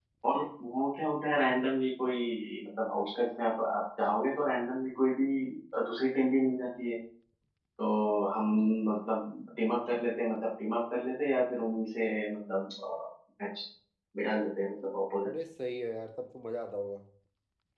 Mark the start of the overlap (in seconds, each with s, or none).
none